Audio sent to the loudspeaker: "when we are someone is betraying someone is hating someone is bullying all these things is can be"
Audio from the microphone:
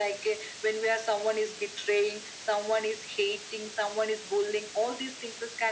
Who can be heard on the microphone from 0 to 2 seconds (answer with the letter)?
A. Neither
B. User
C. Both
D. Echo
D